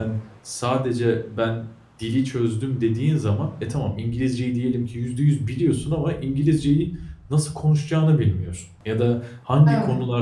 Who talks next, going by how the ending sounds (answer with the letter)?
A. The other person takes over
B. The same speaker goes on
B